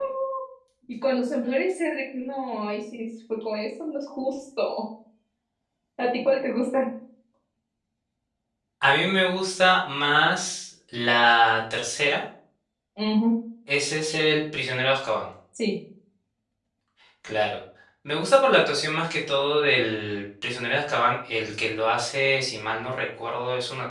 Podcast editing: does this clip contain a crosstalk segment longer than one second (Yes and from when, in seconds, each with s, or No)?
No